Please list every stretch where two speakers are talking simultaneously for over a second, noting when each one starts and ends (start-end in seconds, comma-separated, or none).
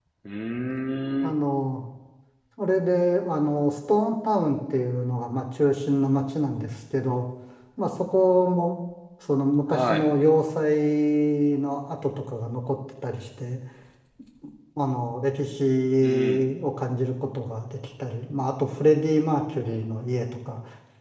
none